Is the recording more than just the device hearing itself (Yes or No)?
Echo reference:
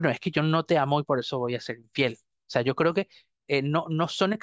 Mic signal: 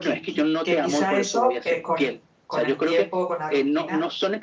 Yes